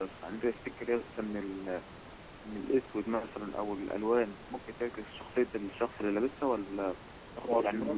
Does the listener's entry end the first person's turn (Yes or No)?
No